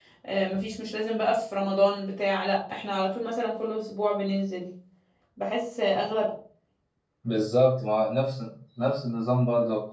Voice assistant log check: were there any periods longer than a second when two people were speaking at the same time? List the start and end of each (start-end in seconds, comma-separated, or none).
none